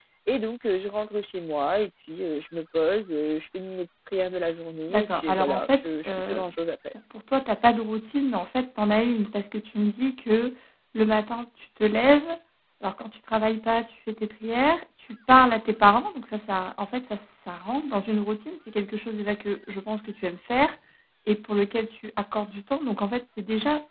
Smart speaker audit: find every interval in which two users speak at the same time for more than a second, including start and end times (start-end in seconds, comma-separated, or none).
4.9-6.4